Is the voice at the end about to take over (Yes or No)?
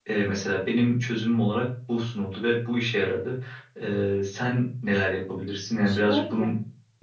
Yes